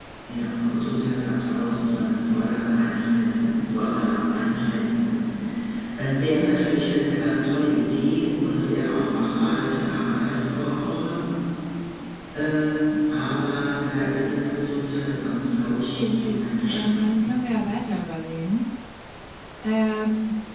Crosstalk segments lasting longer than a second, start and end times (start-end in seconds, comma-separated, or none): 15.9-17.3